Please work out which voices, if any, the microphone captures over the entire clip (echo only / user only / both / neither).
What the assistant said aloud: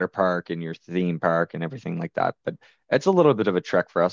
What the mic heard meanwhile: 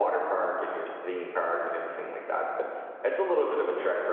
echo only